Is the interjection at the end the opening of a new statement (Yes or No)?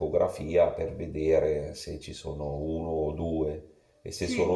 No